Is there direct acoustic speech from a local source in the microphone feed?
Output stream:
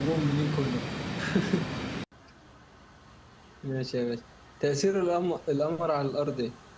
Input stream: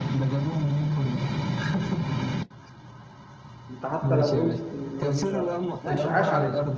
Yes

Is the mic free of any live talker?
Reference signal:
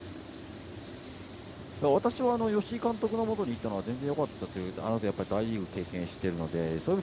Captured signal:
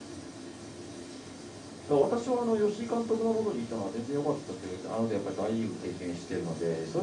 Yes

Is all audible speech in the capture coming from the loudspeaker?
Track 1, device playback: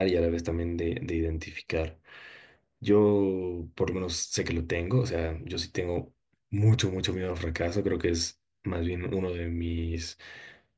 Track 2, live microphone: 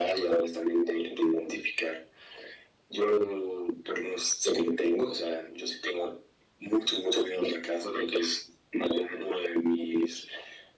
Yes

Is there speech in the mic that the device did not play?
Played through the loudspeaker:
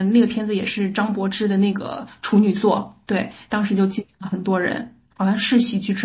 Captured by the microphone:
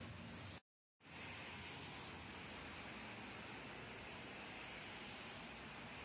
No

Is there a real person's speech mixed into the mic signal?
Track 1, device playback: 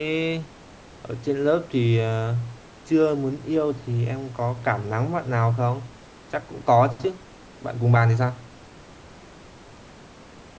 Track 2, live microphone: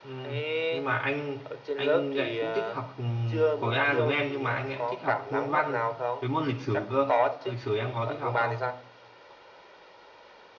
Yes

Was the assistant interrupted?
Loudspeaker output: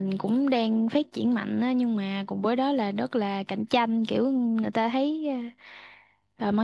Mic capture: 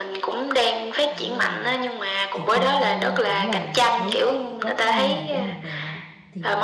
Yes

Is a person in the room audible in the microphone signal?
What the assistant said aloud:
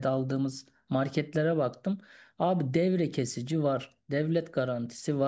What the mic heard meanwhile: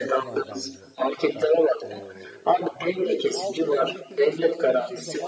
Yes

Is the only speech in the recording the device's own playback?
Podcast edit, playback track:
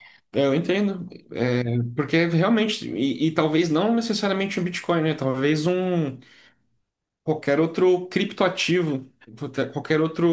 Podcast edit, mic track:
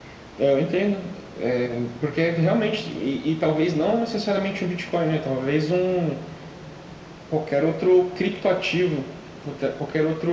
Yes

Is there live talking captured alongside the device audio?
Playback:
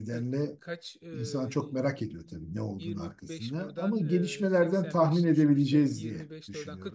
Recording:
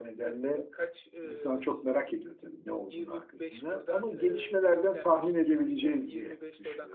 No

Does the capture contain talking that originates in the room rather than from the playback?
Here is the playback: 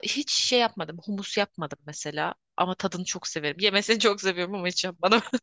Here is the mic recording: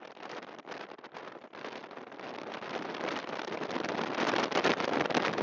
No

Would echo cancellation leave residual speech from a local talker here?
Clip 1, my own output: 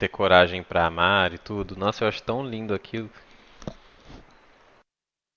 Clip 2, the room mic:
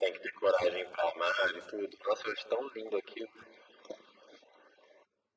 No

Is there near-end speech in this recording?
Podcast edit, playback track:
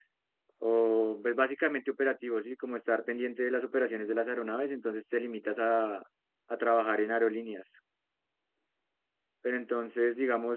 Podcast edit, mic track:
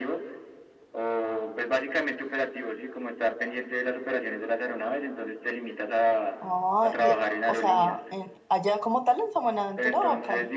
Yes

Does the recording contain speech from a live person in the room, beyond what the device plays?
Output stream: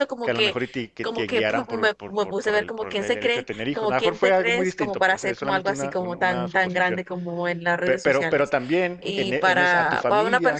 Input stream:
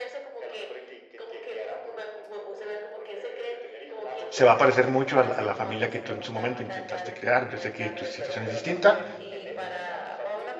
Yes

